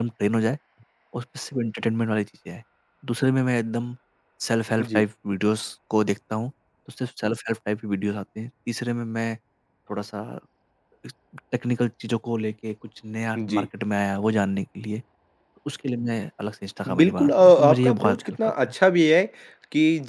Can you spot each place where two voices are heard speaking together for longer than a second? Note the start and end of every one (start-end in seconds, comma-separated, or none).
17.0-18.5